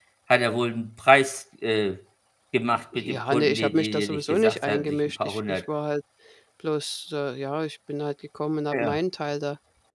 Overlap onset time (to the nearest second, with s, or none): 3 s